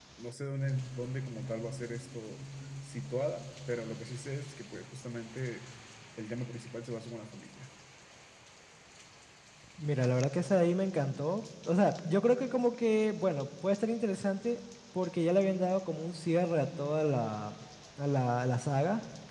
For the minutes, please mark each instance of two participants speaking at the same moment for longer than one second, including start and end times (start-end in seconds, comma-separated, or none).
none